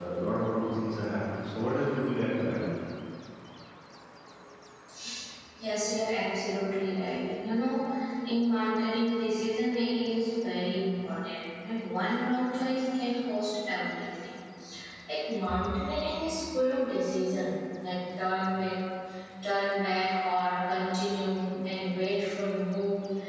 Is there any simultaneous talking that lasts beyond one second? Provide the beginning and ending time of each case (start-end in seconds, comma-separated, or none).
none